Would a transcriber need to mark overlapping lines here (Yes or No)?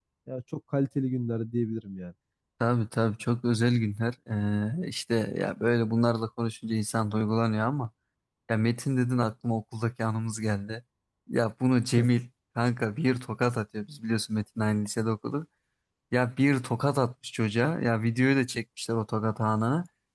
No